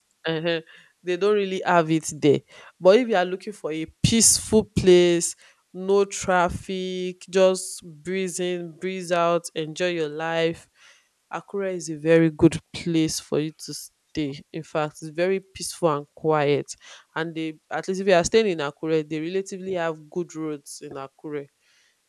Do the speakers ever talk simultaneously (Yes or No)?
No